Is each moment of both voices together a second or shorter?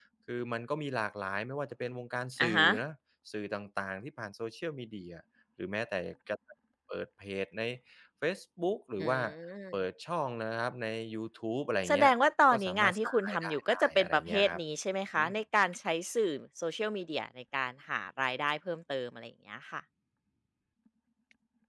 No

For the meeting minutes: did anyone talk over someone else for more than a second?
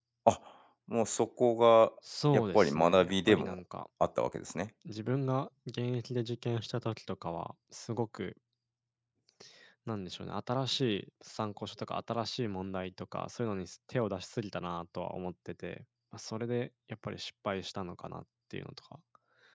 Yes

